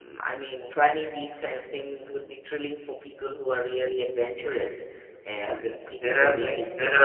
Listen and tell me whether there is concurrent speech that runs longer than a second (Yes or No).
Yes